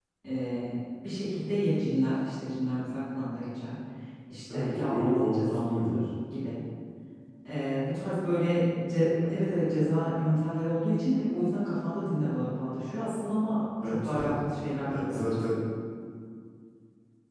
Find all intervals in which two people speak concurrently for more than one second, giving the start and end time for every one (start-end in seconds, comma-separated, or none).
4.5-5.9